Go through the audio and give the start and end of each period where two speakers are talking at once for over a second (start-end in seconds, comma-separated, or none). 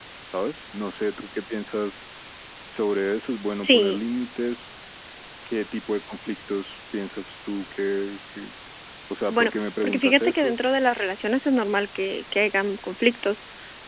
9.3-10.6